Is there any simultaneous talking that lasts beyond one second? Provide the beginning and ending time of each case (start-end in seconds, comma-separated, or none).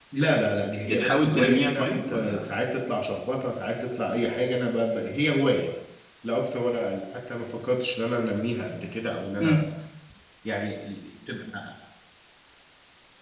0.8-2.5